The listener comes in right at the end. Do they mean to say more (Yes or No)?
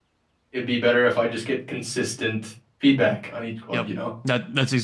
Yes